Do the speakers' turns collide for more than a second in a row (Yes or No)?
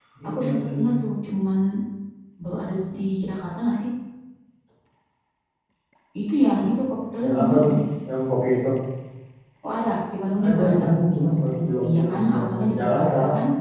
Yes